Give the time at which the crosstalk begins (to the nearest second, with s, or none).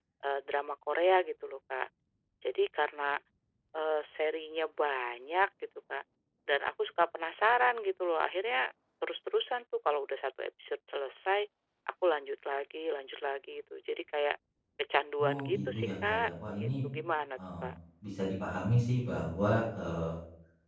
15 s